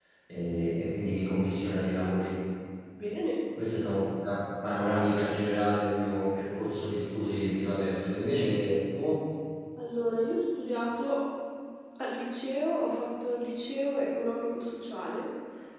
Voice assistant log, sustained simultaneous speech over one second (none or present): none